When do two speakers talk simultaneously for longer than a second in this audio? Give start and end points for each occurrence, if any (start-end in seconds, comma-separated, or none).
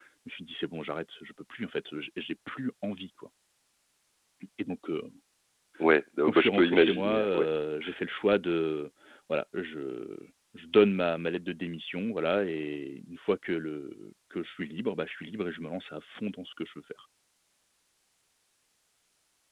6.2-7.5